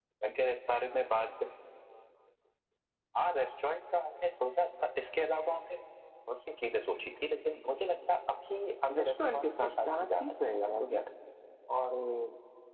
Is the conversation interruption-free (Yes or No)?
No